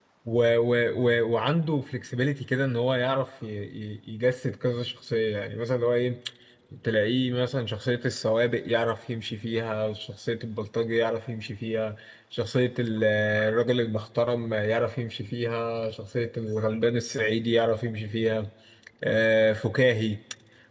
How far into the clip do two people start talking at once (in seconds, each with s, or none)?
none